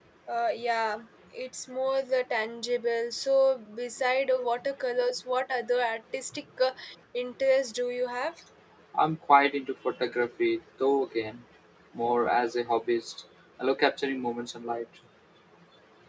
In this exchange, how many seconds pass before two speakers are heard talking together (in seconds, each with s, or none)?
none